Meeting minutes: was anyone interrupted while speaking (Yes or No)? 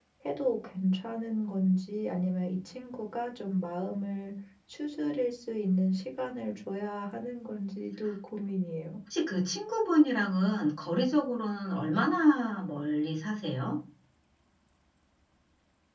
No